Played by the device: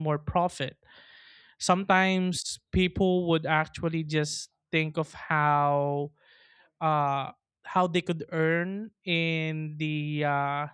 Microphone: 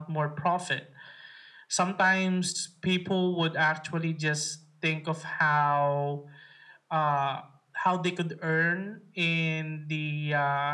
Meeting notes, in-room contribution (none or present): none